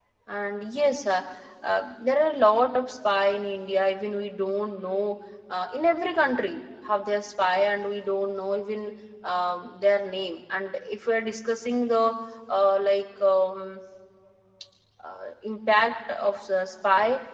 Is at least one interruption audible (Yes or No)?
No